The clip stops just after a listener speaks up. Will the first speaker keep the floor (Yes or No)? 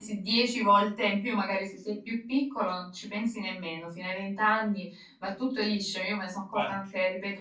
Yes